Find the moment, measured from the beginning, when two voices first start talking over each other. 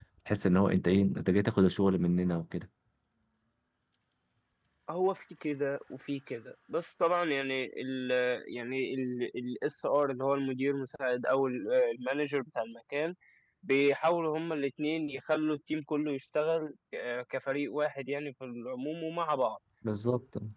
none

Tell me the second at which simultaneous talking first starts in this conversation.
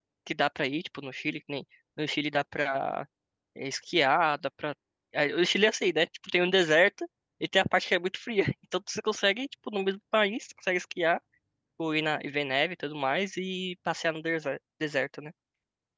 none

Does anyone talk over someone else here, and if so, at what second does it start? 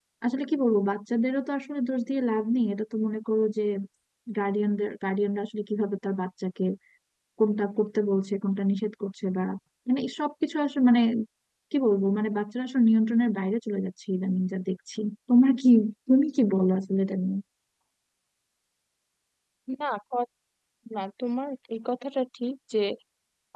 none

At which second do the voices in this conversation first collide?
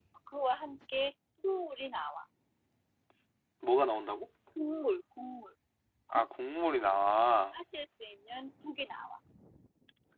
none

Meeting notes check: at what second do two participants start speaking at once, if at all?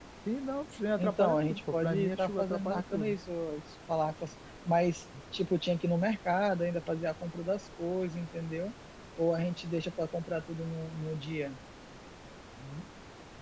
1.0 s

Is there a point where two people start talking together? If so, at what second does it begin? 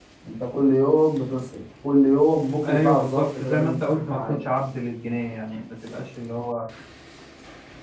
2.6 s

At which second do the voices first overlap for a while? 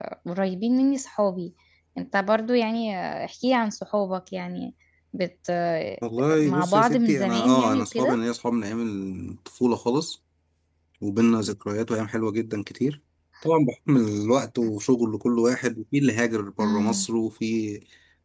6.4 s

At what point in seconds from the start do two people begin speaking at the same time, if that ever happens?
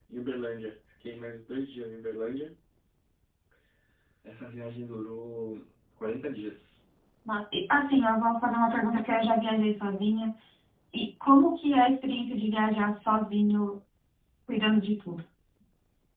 none

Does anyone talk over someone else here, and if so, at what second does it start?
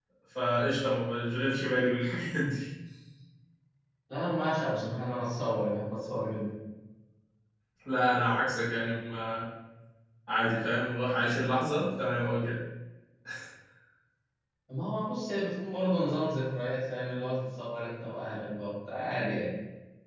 none

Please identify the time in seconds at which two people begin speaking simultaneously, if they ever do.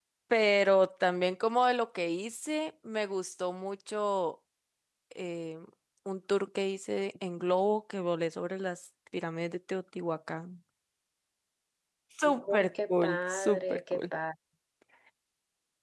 12.2 s

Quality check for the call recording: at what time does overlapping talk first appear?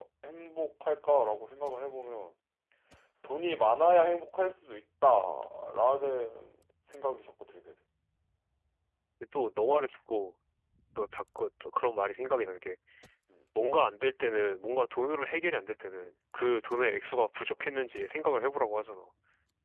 none

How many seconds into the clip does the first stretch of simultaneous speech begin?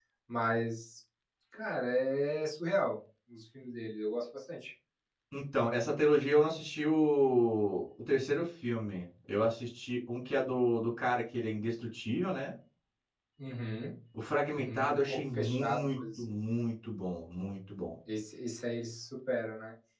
14.6 s

